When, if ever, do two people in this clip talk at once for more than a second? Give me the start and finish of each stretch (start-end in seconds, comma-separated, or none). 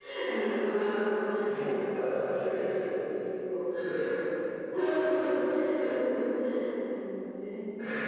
1.4-3.0